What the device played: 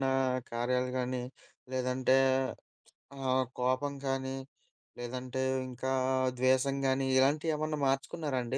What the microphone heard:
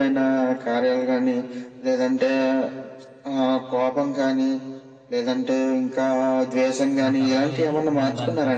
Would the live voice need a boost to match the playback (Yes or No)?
Yes